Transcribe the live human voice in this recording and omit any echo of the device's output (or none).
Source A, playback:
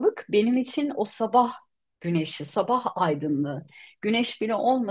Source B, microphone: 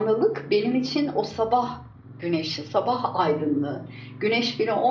none